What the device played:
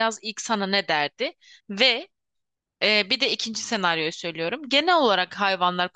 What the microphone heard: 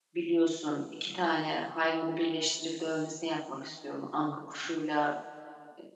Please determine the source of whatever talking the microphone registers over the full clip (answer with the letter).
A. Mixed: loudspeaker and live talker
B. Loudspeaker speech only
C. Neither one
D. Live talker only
D